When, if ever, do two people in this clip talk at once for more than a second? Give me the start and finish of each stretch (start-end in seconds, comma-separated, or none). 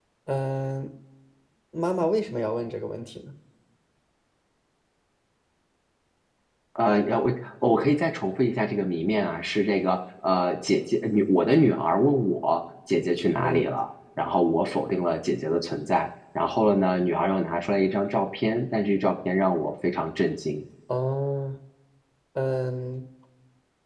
none